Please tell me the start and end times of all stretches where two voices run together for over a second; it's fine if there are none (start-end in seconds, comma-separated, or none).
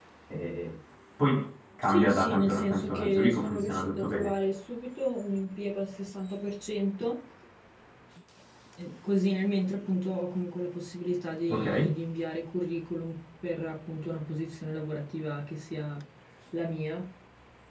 1.8-4.3